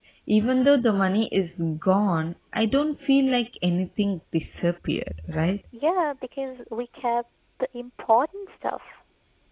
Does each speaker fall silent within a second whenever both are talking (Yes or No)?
Yes